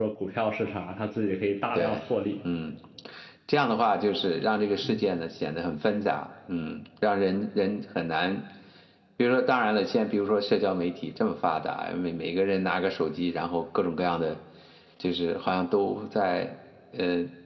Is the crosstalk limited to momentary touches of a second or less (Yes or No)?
Yes